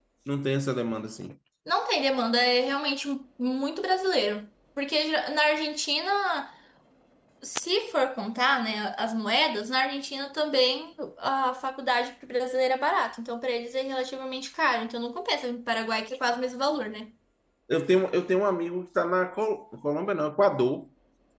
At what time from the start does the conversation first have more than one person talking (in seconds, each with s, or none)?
none